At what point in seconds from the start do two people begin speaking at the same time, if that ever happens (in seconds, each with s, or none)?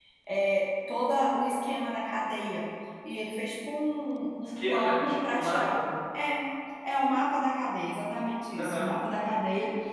4.6 s